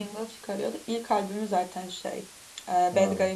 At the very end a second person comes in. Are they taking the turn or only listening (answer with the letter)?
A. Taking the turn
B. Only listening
B